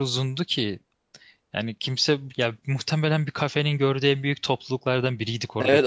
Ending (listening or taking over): taking over